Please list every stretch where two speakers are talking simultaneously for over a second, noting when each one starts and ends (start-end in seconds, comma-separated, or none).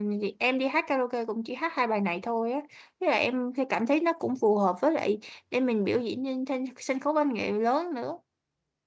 none